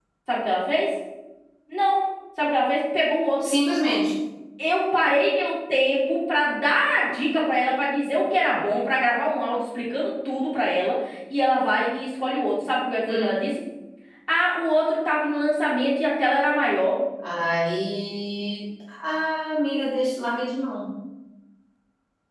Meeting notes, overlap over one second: none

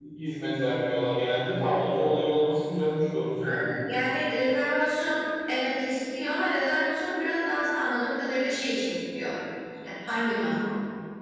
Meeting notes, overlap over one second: none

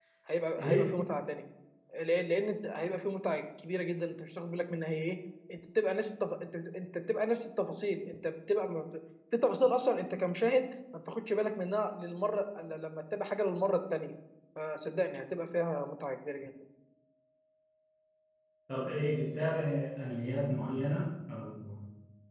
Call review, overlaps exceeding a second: none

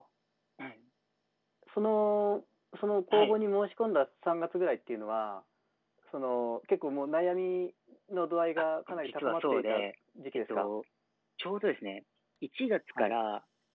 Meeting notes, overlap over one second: present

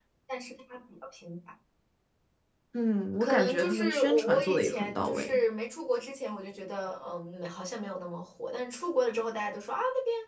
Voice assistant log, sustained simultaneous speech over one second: present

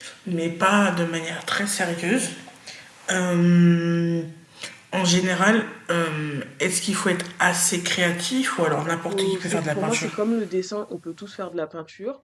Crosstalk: present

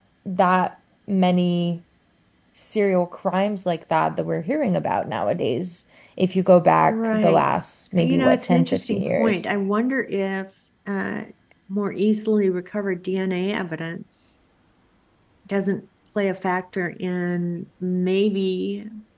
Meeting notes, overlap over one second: present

